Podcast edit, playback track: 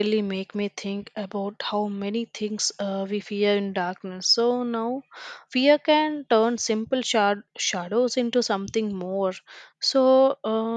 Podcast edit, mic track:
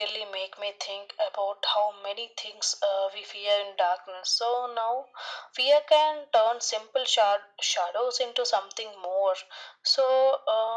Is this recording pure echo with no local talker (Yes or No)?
Yes